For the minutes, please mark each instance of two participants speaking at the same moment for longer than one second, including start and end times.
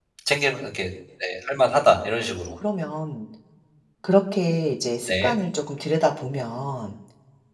none

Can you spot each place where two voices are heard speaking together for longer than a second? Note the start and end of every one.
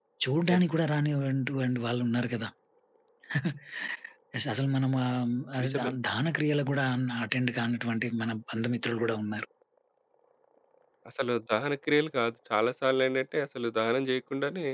none

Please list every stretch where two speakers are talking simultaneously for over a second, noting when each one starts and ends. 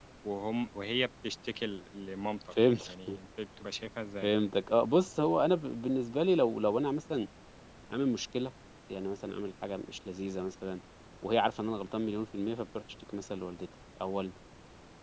none

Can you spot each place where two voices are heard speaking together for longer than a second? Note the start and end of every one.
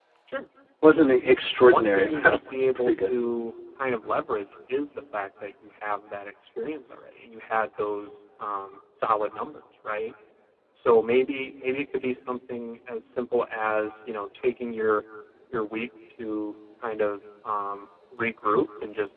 1.7-3.1

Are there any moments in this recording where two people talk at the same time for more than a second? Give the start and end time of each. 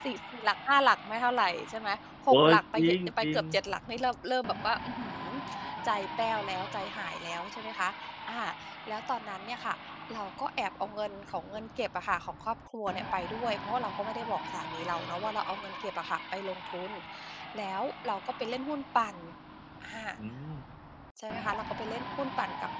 2.3-3.6

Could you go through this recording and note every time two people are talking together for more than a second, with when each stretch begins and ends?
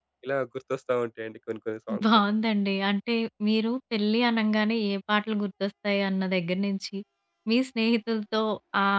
none

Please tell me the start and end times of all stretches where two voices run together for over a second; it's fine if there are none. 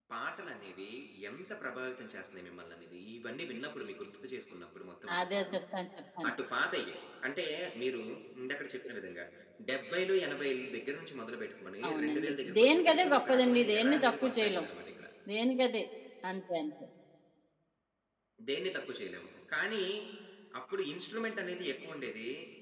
11.9-14.6

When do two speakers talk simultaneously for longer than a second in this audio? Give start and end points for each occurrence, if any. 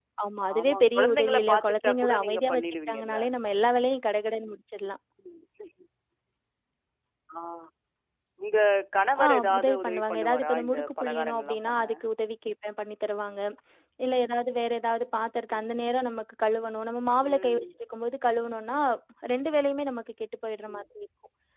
0.6-3.2, 9.2-11.8

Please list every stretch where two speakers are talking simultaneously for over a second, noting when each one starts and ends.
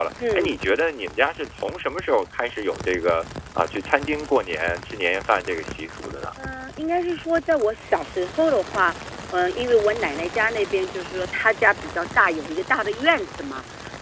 none

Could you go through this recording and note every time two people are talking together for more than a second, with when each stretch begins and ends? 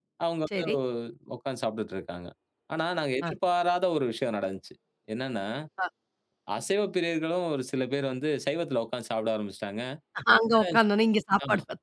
none

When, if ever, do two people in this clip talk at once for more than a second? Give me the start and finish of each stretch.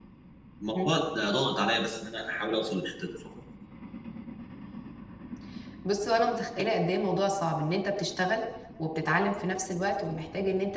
none

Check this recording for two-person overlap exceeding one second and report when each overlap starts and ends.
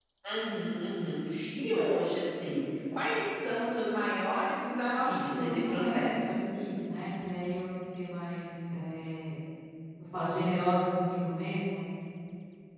4.8-6.3

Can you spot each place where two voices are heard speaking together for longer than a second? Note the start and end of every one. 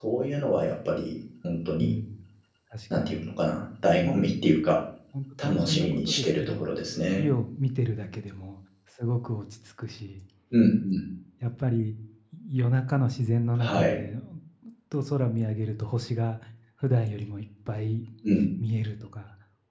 5.4-6.7

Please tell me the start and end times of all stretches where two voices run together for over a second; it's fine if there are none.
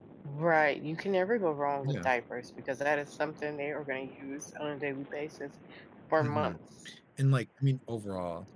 none

